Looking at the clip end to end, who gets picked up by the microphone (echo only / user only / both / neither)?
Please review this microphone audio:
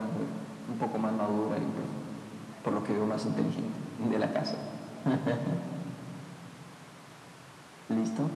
echo only